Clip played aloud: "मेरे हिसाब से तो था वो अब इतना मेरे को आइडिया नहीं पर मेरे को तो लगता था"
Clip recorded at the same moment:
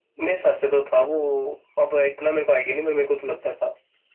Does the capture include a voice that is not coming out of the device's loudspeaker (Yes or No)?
No